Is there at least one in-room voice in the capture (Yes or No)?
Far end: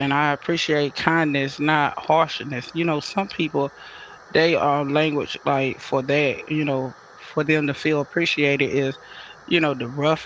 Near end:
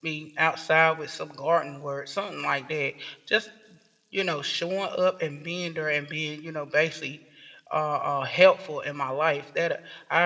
Yes